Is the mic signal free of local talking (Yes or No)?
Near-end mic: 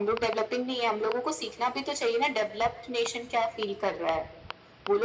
Yes